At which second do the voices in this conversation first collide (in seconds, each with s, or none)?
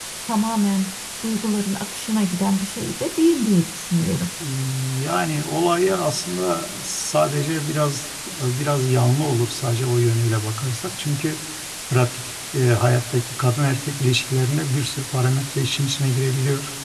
none